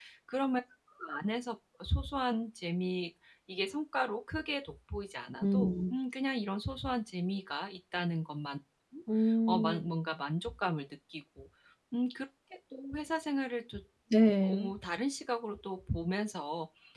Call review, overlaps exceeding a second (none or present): none